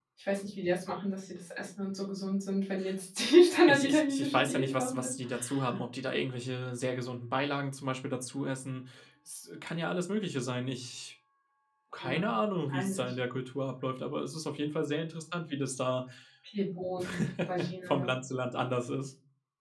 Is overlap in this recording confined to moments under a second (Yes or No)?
No